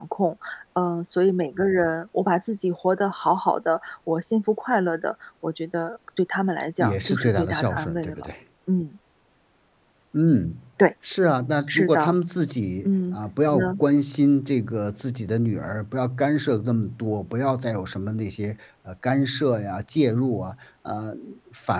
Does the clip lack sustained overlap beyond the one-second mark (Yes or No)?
No